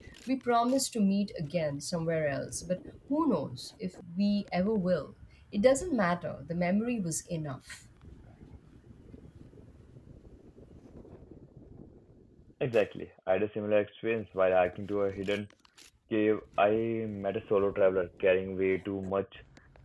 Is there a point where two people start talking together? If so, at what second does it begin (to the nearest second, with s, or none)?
none